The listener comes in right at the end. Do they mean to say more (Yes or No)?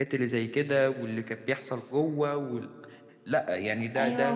Yes